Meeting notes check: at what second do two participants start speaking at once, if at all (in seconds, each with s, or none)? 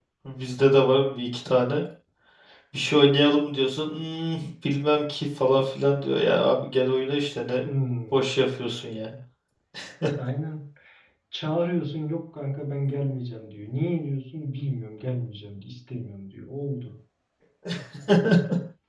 none